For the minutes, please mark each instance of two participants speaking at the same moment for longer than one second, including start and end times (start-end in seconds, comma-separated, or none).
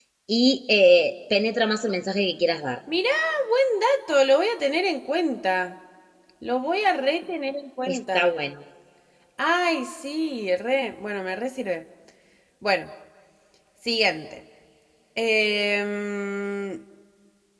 none